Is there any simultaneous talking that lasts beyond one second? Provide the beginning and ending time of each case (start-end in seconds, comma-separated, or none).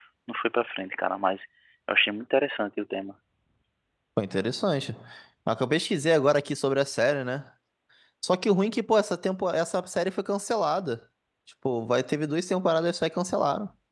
none